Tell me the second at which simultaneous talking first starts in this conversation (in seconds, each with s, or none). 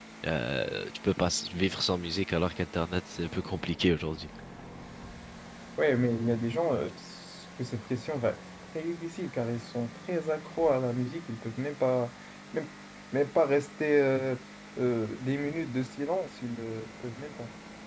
none